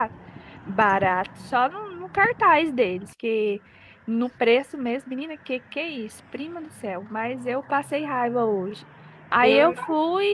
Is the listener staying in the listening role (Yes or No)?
Yes